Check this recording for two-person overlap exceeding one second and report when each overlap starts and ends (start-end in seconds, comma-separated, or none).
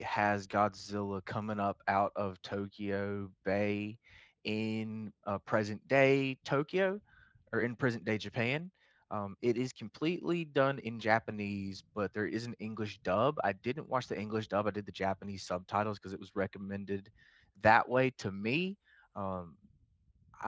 none